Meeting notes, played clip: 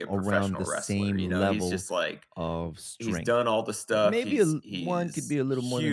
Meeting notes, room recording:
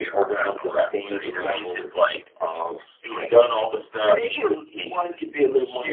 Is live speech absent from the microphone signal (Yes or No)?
Yes